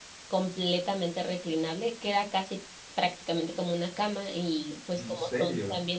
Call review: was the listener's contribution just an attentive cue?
Yes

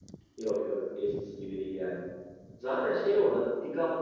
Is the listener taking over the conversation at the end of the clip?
No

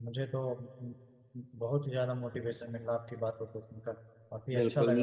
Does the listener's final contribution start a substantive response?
Yes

